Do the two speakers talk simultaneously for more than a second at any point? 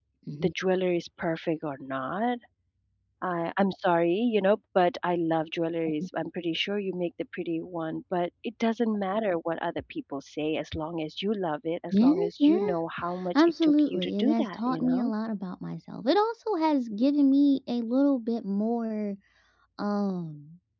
Yes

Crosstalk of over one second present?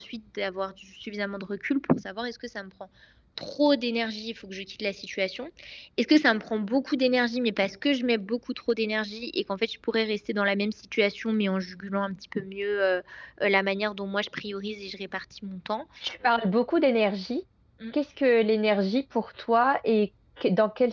No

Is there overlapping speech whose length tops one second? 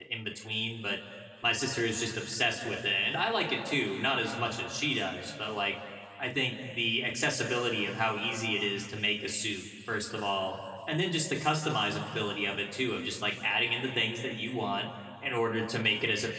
No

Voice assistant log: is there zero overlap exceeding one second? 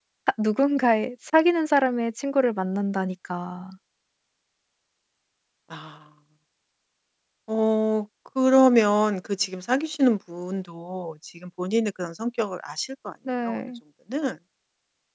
Yes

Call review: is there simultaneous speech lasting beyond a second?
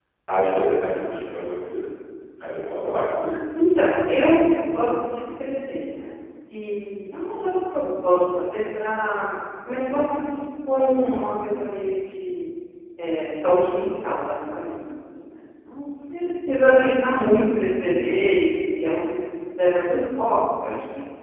No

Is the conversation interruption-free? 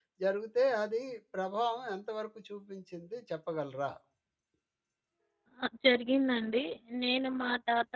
Yes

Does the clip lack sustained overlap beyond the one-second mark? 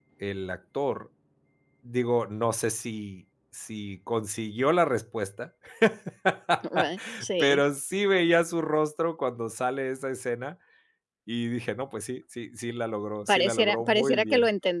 No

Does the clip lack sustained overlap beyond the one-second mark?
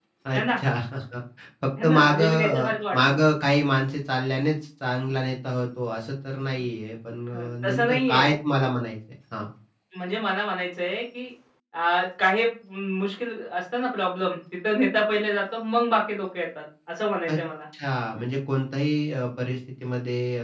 No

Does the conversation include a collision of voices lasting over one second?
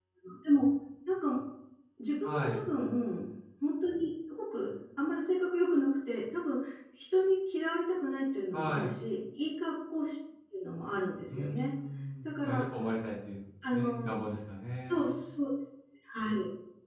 No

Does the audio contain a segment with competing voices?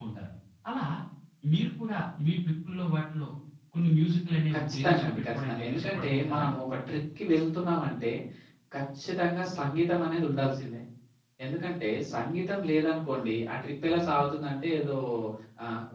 Yes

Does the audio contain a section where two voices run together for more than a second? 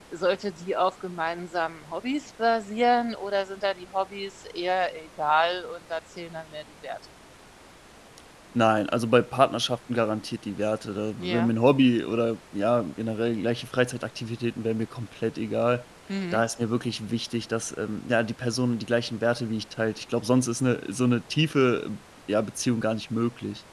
No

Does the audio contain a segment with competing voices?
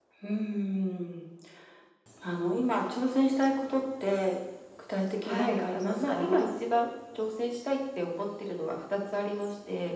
Yes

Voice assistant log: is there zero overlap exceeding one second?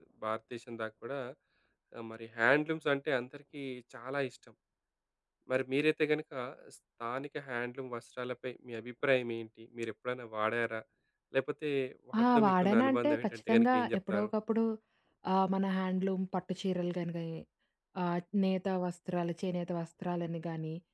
No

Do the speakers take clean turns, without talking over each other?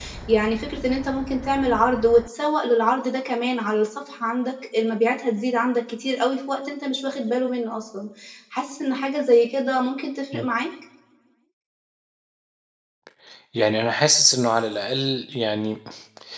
Yes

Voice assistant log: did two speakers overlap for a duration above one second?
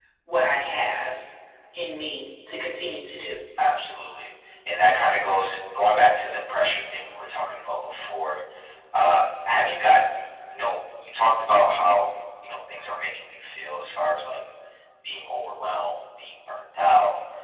No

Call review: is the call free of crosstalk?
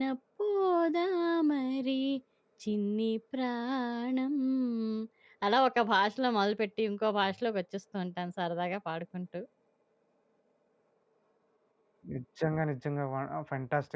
Yes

